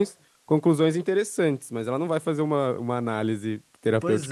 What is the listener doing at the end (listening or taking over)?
taking over